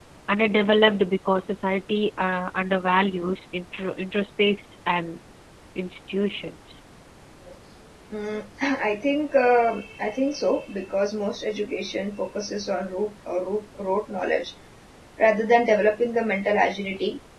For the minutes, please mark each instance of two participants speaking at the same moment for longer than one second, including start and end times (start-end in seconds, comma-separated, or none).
none